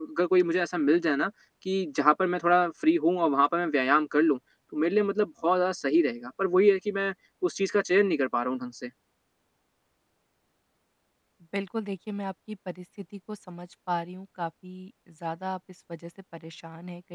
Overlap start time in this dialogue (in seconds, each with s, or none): none